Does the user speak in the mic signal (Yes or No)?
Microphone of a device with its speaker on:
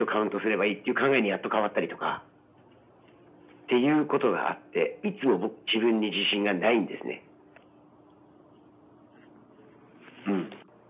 No